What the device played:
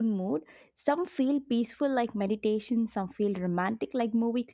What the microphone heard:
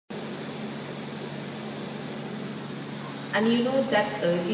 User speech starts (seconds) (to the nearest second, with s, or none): 3 s